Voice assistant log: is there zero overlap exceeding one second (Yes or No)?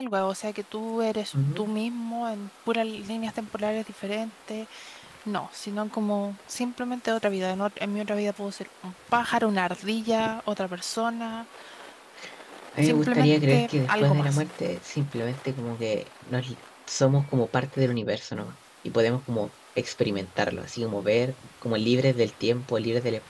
No